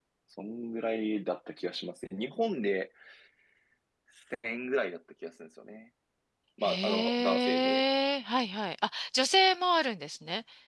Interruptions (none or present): present